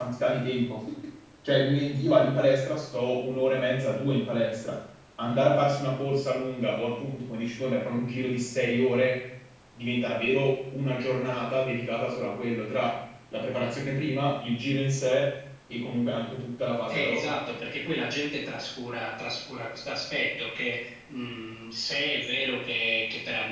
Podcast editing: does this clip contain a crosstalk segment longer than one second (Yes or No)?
No